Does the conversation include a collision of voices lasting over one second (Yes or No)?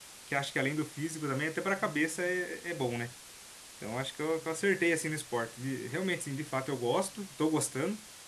No